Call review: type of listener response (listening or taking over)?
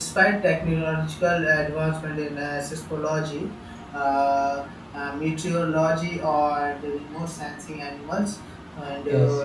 listening